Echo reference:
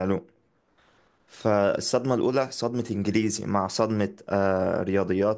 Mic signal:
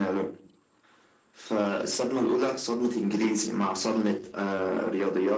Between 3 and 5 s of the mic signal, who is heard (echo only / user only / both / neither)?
echo only